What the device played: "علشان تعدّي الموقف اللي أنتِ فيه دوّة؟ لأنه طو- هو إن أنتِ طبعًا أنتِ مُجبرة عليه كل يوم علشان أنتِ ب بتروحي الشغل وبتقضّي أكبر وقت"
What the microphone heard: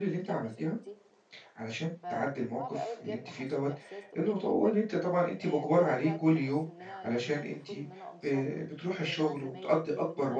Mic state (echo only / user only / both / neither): both